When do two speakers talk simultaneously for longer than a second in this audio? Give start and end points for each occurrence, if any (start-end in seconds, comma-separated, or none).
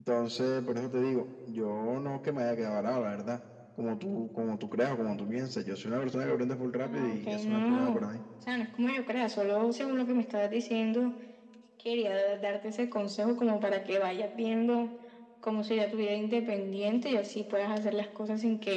6.8-8.0